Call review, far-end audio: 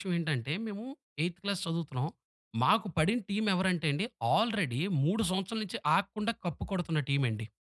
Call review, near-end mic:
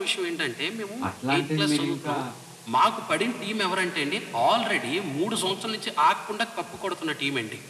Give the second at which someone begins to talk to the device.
1.1 s

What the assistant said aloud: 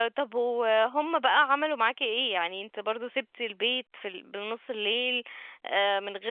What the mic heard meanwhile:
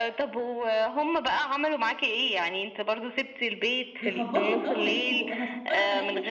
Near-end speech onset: 4.0 s

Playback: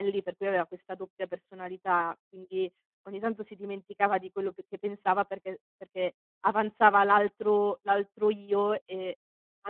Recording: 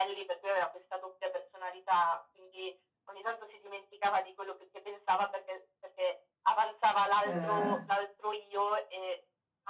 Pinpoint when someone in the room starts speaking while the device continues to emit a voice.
7.2 s

